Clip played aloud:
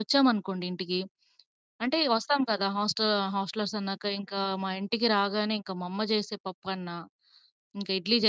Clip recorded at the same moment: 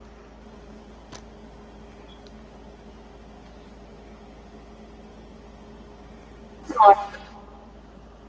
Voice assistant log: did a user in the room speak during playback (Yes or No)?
Yes